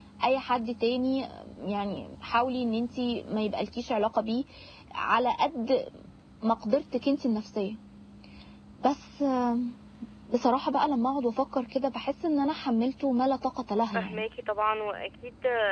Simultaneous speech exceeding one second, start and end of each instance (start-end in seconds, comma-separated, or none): none